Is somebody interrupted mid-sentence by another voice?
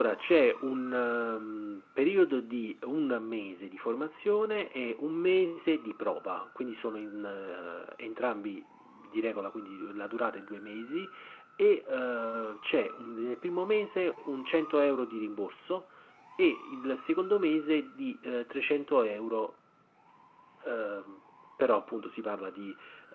No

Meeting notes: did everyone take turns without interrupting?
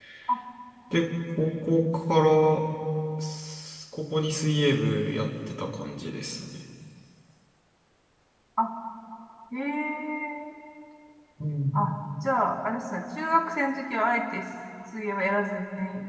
Yes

